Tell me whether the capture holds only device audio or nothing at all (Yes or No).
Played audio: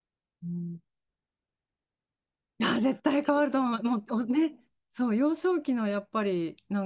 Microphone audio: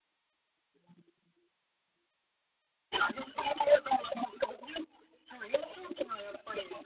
Yes